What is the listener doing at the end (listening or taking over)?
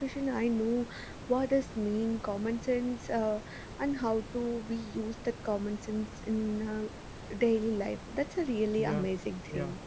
taking over